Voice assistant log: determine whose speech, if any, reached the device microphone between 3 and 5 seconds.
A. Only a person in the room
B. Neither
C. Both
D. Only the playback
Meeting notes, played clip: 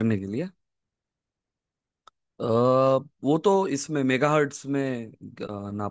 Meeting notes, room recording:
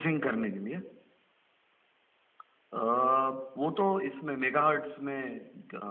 D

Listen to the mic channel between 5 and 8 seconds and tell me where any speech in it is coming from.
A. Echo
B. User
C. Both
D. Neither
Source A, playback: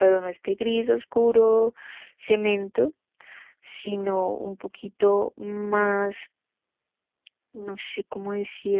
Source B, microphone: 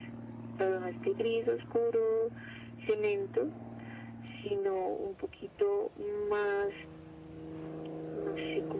A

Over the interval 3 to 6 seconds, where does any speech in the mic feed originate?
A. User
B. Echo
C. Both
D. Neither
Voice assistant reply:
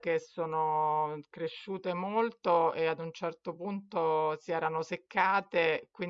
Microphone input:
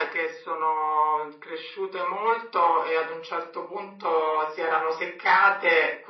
B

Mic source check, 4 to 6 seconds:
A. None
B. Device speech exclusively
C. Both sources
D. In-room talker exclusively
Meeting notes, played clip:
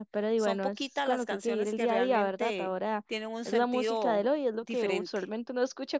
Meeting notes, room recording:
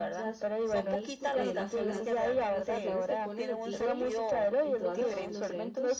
C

